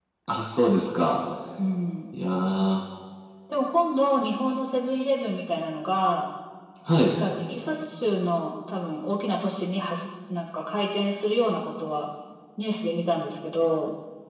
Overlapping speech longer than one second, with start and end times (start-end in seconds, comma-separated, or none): none